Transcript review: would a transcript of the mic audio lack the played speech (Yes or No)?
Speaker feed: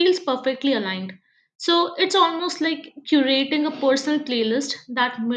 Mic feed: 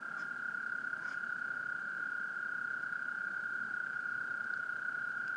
Yes